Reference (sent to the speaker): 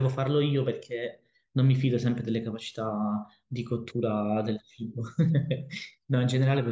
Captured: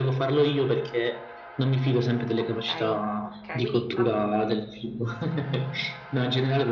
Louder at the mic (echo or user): echo